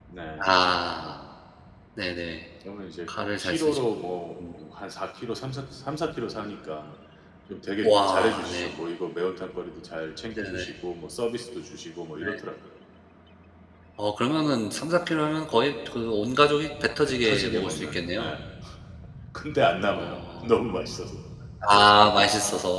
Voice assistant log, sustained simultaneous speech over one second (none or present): present